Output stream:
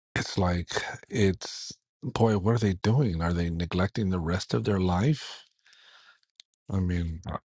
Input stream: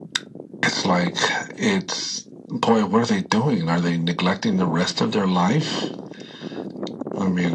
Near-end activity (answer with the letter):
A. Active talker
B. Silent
B